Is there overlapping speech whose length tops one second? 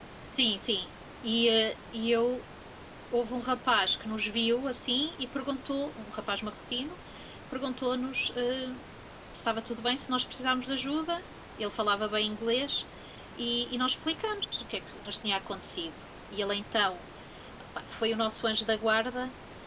No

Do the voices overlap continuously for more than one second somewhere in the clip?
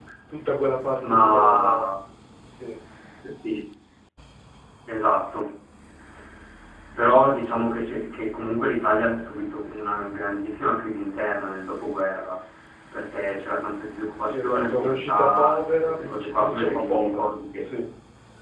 Yes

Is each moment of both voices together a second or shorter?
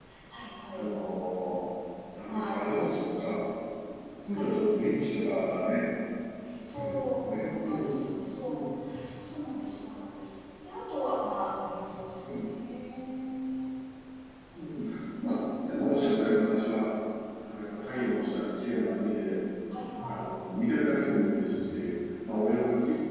No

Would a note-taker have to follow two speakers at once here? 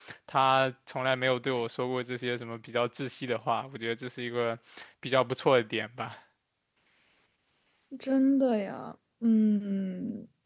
No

